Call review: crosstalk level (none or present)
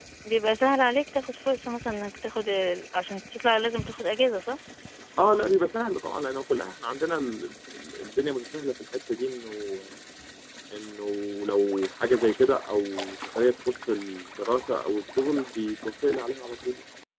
none